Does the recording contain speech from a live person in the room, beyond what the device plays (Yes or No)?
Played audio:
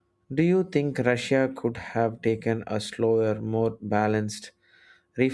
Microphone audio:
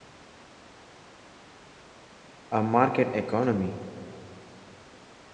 Yes